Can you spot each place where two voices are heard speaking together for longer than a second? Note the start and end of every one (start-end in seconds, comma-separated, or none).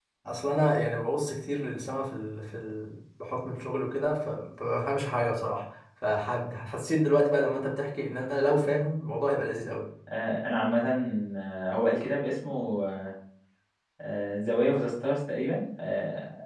none